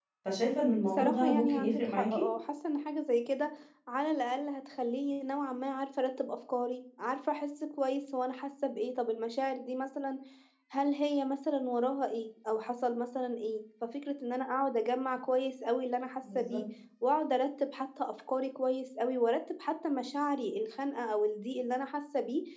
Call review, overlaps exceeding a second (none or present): present